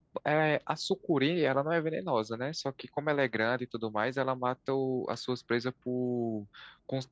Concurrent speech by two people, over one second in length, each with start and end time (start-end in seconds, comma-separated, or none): none